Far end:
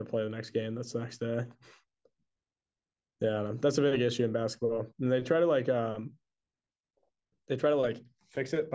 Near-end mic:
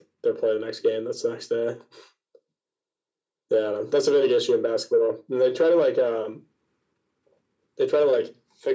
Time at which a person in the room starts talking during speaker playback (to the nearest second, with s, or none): none